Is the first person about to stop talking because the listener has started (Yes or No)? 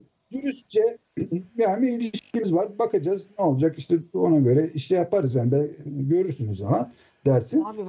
Yes